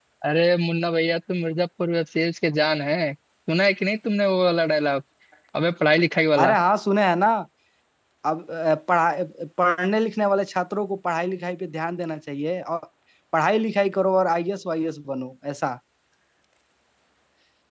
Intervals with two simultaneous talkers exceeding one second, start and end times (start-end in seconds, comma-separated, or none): none